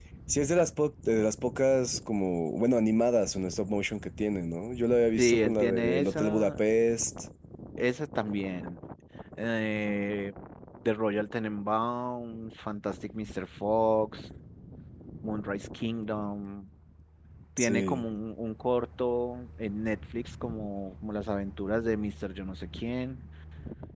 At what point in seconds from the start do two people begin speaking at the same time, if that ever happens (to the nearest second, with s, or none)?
5 s